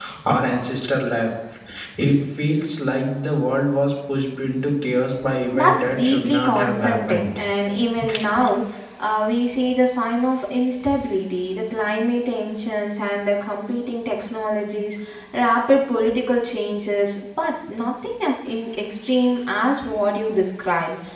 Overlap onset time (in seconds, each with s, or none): 5.5 s